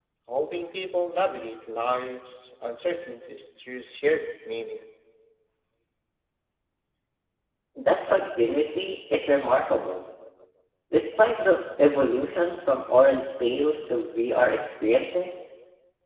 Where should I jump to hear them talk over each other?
none

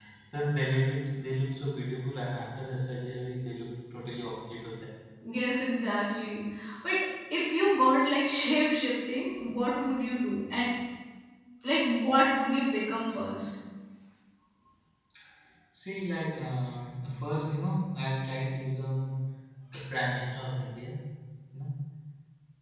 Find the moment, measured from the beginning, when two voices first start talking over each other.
none

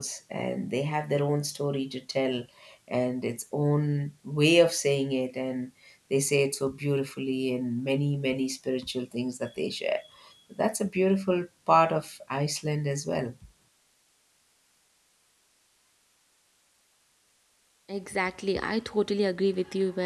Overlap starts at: none

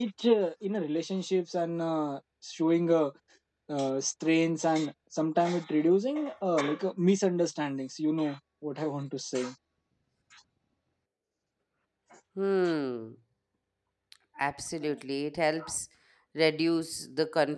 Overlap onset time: none

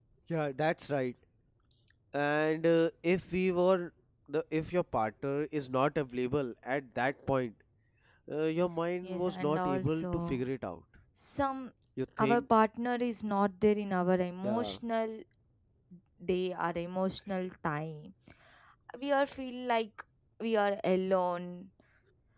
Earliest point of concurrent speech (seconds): 9.0 s

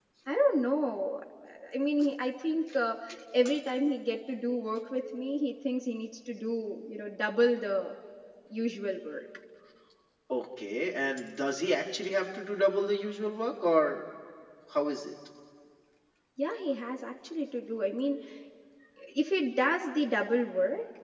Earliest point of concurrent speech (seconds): none

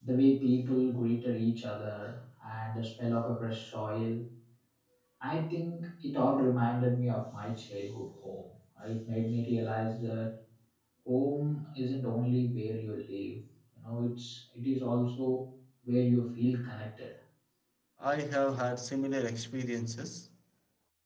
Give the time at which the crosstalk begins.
none

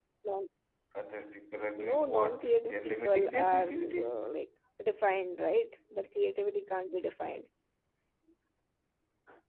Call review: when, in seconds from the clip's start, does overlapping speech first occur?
1.8 s

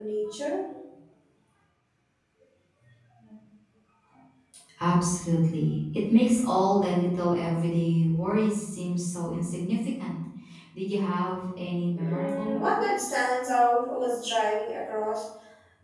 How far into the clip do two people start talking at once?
11.9 s

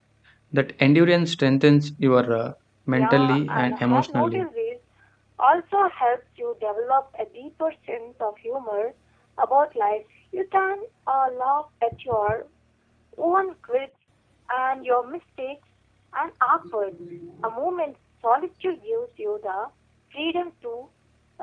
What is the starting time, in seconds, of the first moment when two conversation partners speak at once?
2.9 s

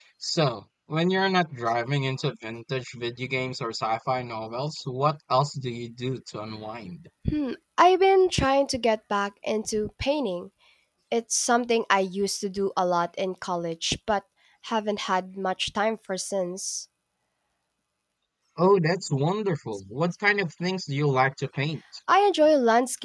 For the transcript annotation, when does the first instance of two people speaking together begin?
none

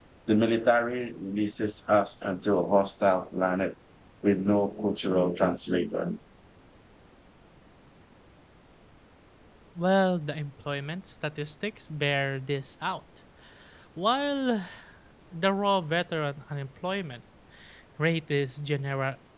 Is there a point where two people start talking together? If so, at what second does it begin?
none

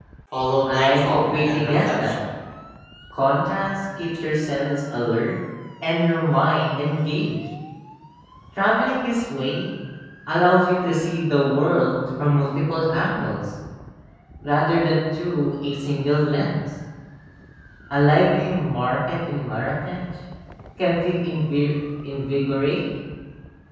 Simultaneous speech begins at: 0.7 s

